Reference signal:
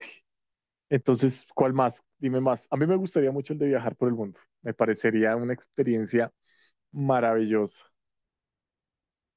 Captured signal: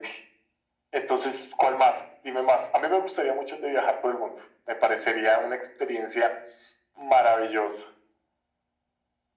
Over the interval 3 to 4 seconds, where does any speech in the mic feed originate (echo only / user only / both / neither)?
echo only